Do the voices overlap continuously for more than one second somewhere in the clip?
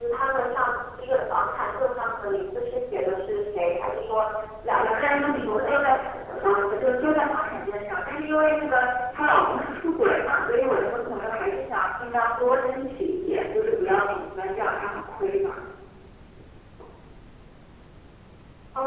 Yes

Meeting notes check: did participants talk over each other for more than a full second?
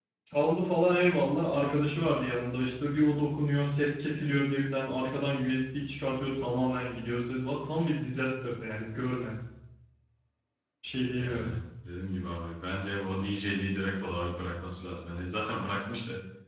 No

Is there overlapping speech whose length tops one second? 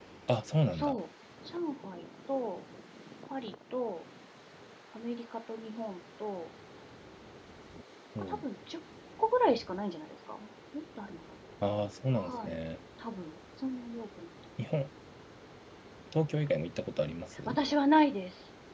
No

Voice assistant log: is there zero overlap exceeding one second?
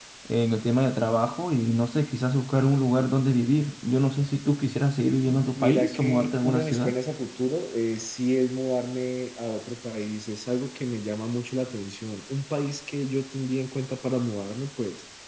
No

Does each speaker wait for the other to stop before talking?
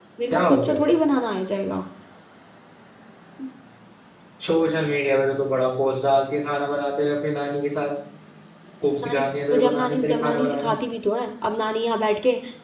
No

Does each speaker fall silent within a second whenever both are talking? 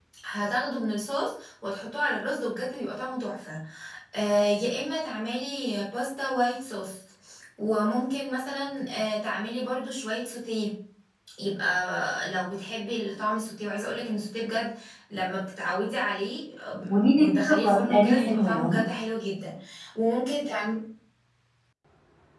No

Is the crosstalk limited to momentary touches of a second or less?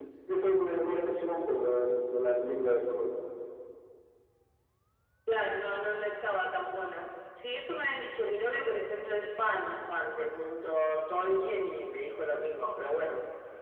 Yes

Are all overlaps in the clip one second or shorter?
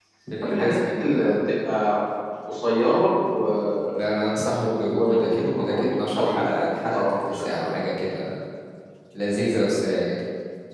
No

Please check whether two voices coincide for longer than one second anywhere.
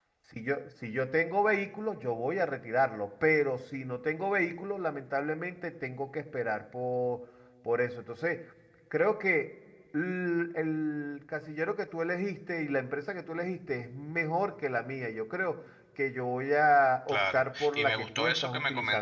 Yes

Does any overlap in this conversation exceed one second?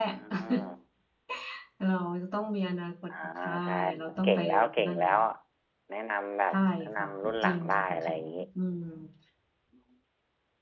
Yes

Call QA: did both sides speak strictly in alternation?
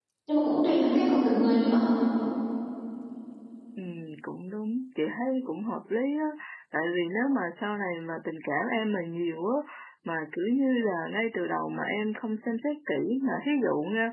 Yes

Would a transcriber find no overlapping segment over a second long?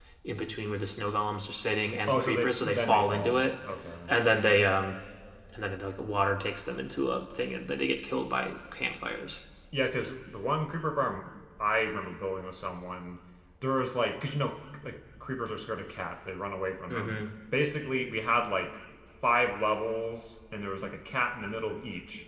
No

